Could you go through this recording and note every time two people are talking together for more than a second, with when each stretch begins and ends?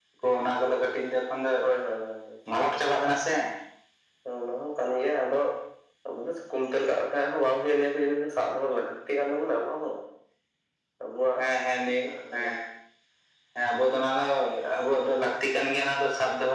none

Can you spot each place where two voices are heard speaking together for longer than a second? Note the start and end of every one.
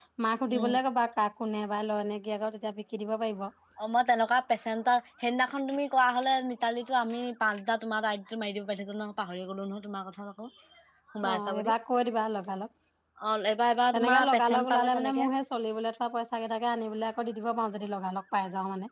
13.9-15.2

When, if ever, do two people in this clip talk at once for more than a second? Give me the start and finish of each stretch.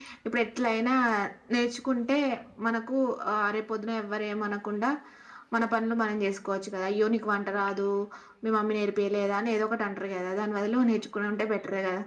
none

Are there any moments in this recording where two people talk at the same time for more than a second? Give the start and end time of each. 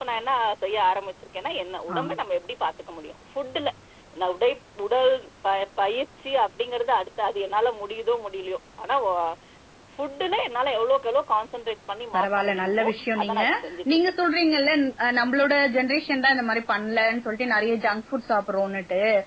12.2-13.4

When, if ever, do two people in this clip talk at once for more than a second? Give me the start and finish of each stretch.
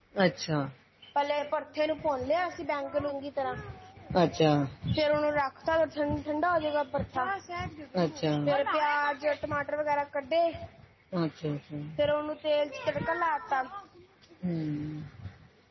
none

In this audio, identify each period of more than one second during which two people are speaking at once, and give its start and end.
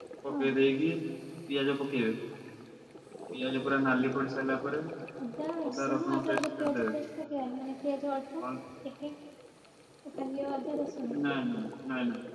5.7-6.9

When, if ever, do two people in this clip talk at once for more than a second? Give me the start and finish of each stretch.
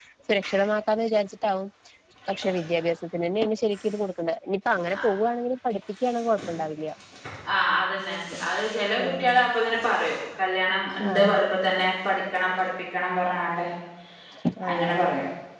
none

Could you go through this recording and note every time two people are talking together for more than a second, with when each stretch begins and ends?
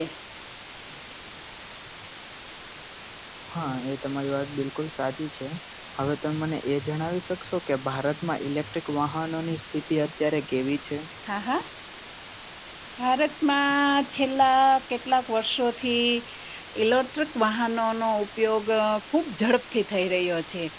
none

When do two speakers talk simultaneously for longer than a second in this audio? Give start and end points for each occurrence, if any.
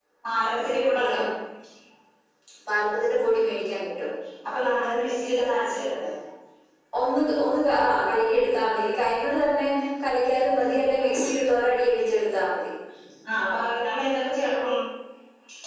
none

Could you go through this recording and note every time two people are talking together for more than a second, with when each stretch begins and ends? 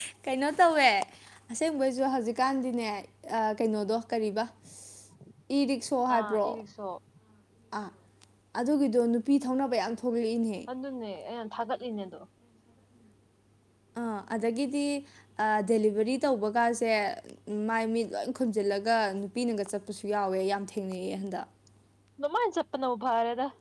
none

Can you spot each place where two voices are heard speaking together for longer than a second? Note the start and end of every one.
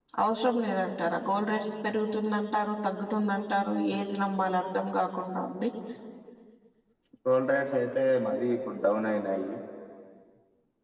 none

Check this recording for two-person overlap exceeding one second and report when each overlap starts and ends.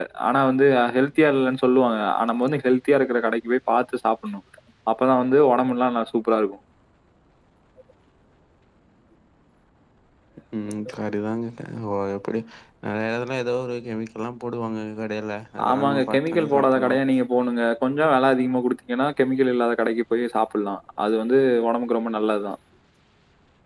15.7-16.9

